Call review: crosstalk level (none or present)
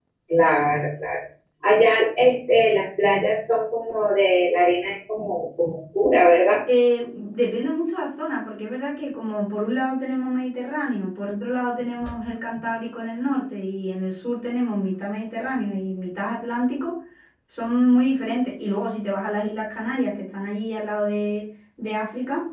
none